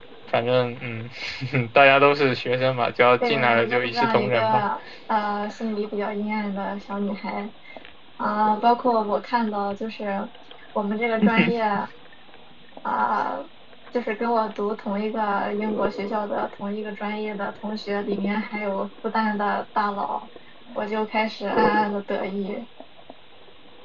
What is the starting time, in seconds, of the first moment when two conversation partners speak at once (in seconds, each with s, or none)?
3.2 s